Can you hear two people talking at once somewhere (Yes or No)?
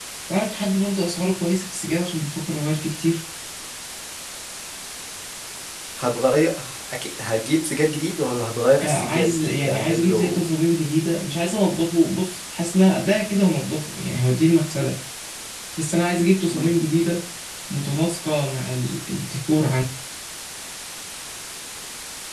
Yes